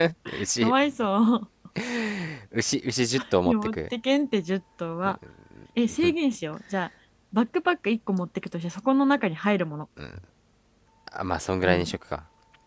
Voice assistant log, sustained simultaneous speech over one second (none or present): none